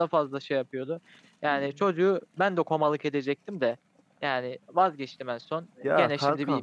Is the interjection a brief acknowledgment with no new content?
Yes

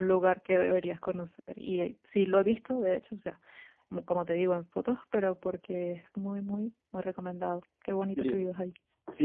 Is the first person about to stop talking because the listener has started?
Yes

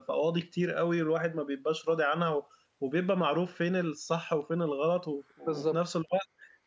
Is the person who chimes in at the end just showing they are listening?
Yes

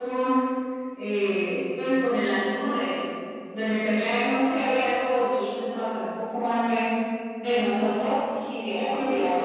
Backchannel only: Yes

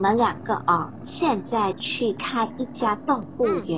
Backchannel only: Yes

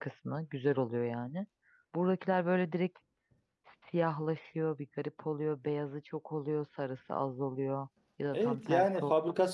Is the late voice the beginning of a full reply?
Yes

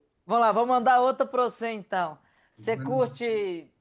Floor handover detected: No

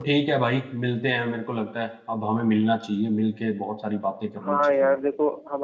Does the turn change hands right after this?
Yes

